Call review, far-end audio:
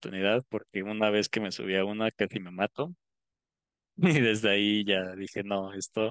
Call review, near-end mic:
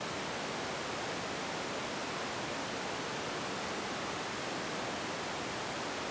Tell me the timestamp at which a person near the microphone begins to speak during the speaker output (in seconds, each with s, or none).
none